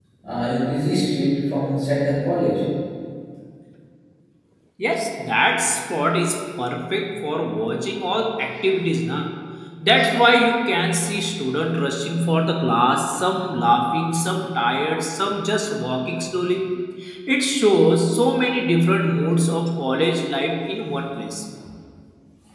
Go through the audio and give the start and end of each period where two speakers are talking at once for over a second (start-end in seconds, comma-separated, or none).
none